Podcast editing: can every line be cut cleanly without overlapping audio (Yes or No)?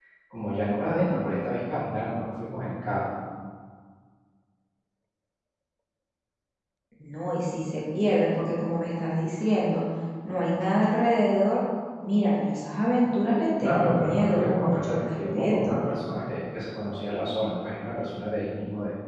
No